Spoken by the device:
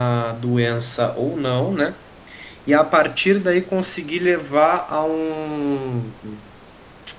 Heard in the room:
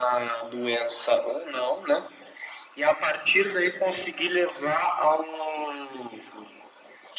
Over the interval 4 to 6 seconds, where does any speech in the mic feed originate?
echo only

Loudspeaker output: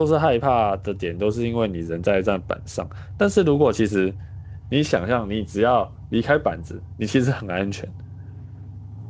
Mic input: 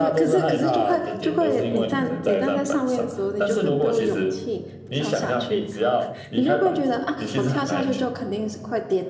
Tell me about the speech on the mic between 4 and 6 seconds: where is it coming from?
both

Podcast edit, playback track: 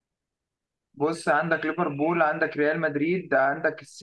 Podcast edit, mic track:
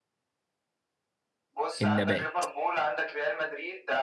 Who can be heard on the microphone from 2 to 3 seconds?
both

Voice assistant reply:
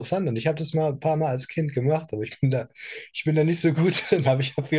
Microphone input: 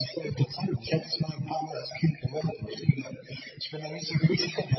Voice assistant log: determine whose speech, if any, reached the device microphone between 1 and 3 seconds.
echo only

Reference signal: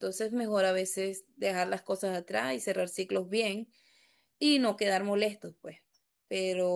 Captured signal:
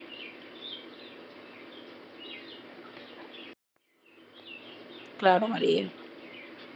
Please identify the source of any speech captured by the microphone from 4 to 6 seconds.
user only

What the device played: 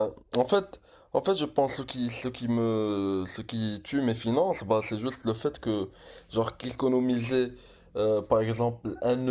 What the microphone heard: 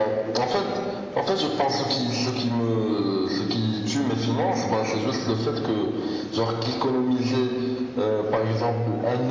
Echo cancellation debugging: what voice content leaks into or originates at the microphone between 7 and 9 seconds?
echo only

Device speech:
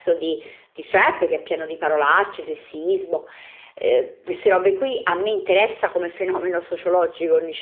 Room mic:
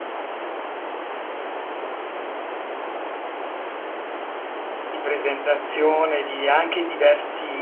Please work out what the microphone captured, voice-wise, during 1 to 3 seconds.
neither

